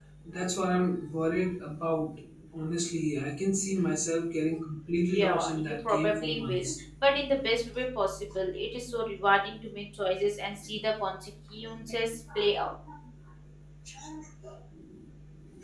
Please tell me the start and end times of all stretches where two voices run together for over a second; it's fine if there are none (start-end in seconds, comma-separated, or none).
5.1-6.7